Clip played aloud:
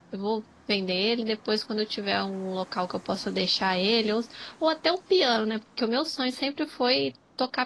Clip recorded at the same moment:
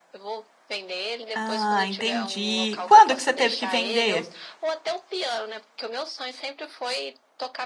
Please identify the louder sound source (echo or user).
user